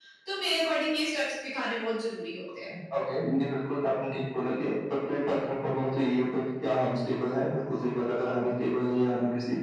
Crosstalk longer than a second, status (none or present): none